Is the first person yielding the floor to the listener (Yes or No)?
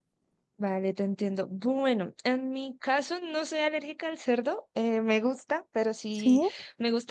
No